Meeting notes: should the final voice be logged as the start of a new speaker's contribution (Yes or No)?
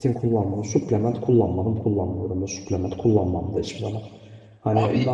No